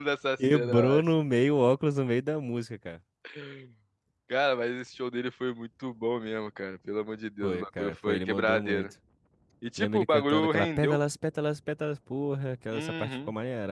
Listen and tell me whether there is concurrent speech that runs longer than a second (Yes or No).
Yes